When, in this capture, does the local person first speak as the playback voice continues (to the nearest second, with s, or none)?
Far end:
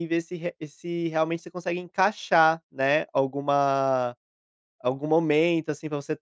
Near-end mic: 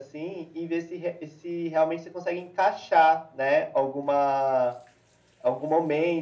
none